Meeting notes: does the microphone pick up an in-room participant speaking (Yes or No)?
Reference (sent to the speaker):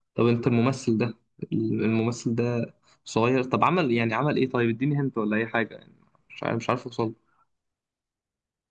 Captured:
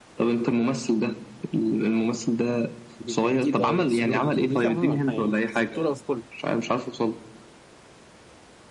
Yes